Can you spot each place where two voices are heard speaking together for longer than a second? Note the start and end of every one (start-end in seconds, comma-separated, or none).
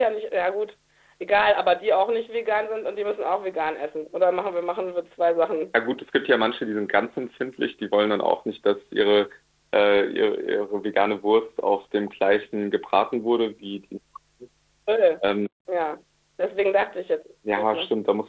none